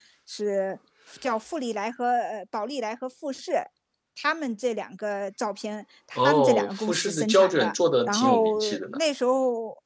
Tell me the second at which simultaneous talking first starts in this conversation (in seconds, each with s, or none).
6.2 s